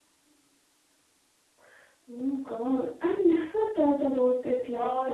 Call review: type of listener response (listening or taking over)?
taking over